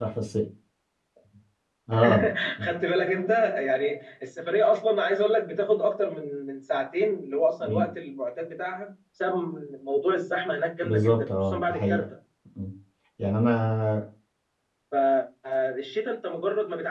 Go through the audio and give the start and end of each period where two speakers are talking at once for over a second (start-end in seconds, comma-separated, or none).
10.8-12.1